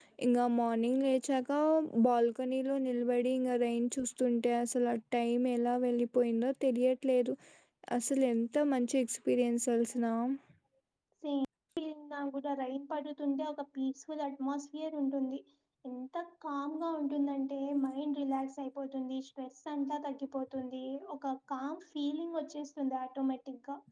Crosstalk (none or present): none